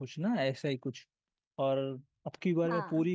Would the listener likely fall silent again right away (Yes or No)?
Yes